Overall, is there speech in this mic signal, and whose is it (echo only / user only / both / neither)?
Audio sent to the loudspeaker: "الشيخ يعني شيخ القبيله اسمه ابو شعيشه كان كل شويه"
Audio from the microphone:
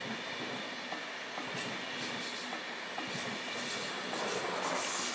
neither